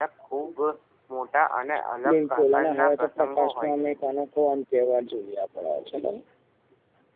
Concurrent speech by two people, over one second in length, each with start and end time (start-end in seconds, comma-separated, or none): 2.1-3.9